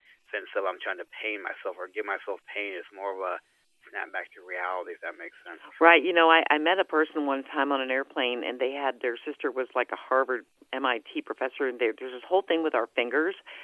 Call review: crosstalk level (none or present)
none